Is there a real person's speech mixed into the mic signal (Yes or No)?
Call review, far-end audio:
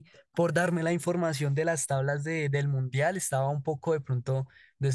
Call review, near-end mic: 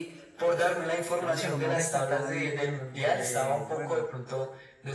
Yes